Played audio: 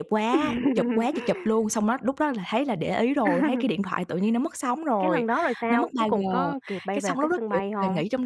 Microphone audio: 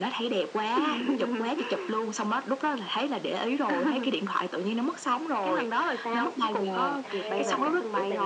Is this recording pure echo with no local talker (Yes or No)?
No